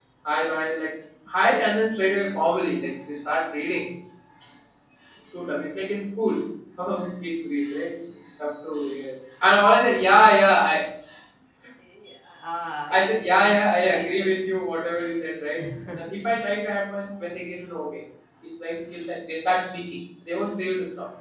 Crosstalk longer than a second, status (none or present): present